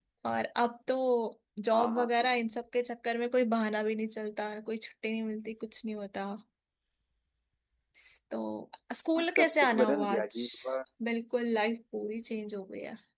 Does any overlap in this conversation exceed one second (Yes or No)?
Yes